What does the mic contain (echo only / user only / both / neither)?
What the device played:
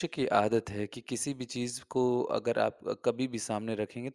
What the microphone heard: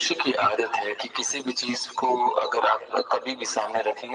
echo only